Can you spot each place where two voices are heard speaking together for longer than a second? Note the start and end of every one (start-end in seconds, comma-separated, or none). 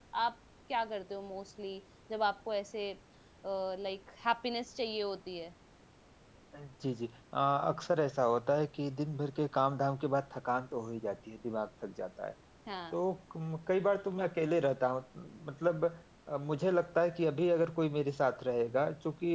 none